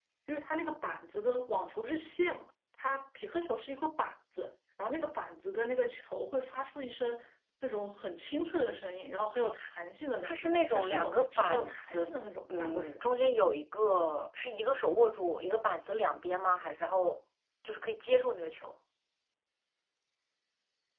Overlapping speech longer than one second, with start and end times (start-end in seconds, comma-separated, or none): 10.2-12.1